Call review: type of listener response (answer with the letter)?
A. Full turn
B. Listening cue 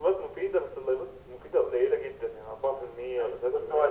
A